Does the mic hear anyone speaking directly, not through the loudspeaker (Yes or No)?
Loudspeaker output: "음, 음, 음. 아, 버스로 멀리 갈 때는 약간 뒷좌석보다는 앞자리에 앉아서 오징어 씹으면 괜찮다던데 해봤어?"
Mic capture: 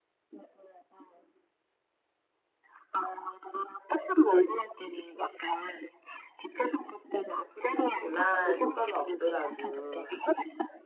Yes